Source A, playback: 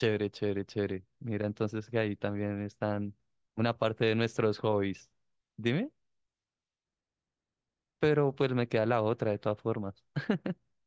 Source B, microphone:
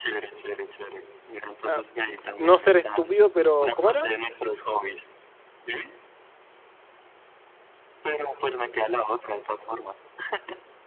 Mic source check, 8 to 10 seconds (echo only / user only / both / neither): echo only